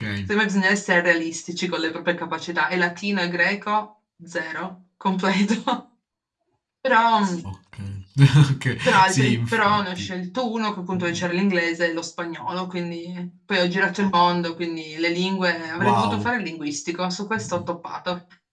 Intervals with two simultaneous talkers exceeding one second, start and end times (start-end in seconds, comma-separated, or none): 8.8-10.1